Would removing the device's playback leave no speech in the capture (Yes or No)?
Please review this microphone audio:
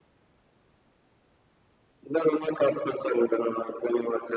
Yes